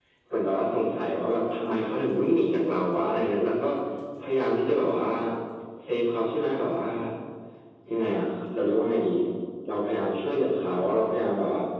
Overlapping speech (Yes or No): No